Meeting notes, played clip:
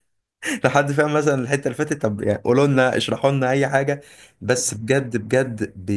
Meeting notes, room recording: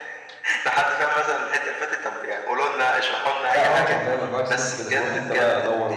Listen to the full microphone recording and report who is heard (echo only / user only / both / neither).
both